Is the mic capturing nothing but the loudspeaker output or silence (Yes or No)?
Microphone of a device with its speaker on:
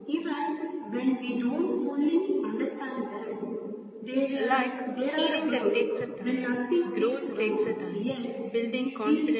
No